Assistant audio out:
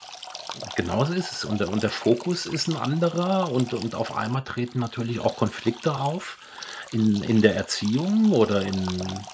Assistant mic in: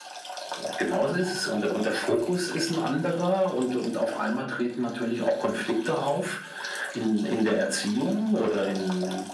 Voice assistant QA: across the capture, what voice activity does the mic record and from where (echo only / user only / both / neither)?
echo only